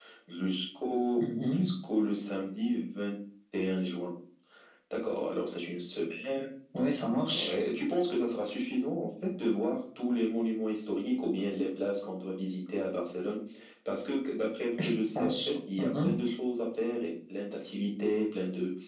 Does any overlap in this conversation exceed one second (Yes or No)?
Yes